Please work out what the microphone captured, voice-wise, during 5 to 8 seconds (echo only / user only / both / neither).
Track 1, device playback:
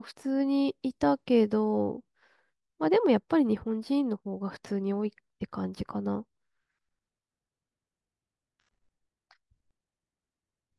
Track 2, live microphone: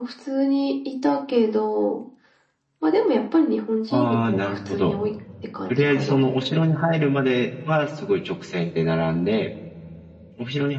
both